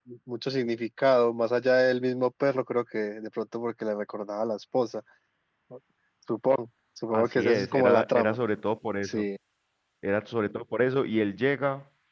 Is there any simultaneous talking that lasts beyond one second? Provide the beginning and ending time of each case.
7.1-8.4

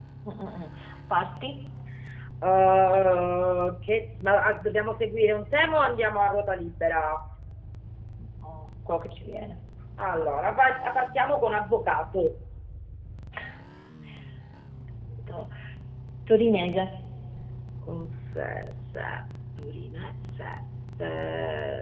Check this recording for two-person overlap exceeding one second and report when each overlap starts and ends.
none

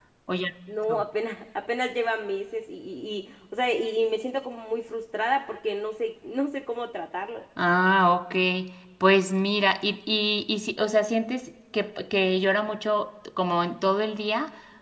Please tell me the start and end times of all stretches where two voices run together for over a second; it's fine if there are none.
none

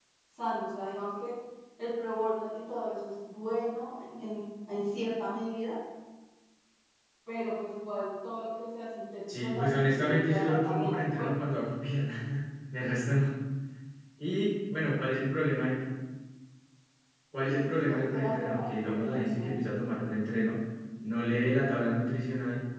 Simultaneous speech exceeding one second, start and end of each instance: 9.3-11.3, 17.4-19.5

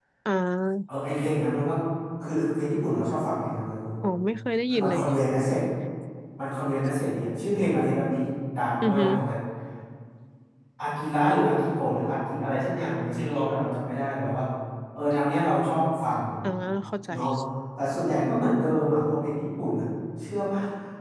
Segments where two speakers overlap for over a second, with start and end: none

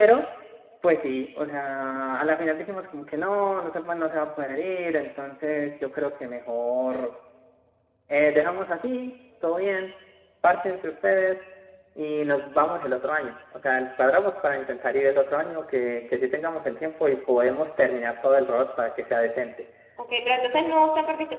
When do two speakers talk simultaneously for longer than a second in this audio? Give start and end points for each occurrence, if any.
none

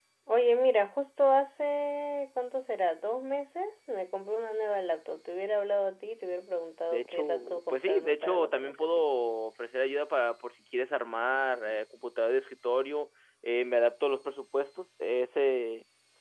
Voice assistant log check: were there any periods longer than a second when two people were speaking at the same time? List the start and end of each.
6.9-8.9

